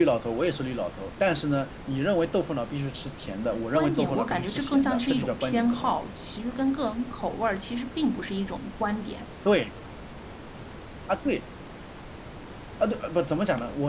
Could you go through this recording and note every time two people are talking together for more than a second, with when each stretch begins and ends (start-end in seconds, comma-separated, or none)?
3.7-6.0